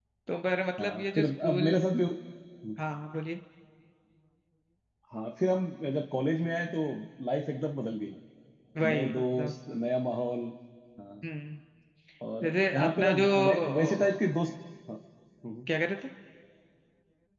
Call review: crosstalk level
present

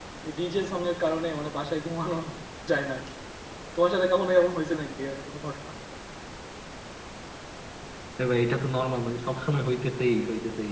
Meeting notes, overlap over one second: none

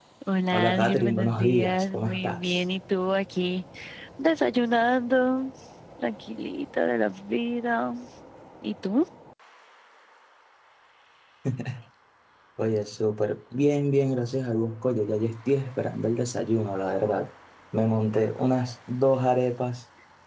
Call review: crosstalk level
present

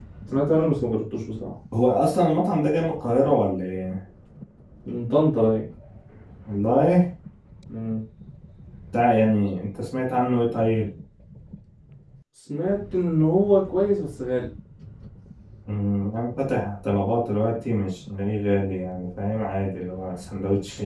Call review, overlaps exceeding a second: none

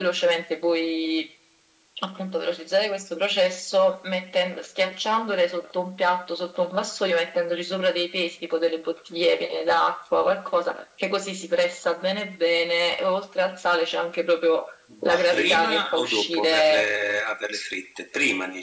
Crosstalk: present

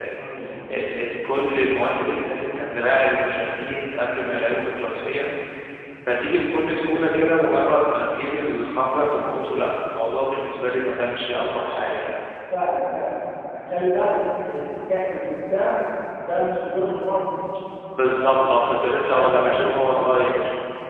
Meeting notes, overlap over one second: present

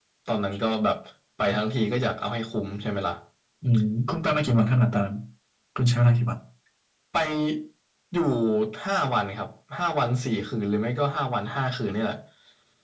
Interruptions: none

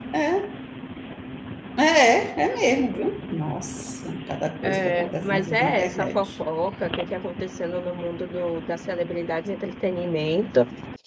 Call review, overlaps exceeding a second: present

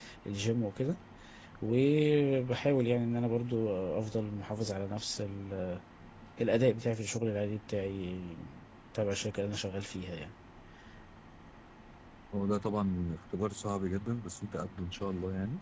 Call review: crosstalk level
none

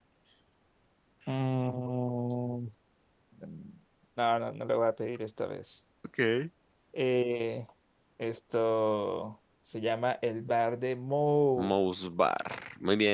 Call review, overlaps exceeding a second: none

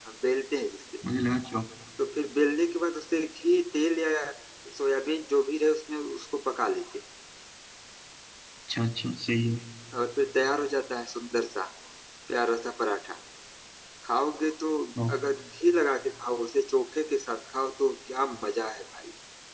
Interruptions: none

